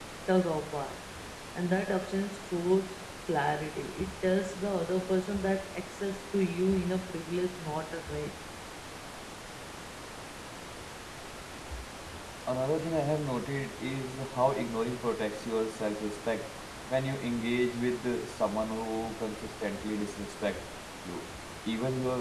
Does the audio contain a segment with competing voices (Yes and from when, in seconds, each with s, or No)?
No